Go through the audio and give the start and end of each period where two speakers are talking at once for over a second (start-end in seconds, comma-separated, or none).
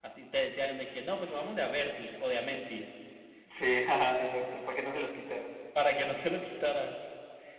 none